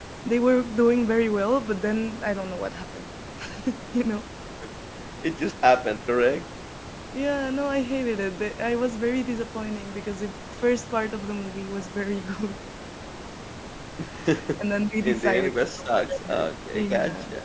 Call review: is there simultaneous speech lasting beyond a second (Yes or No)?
Yes